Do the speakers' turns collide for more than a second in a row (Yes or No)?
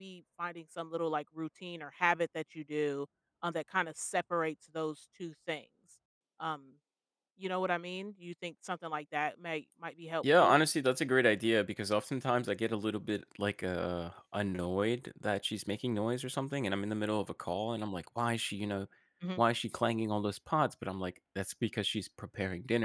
No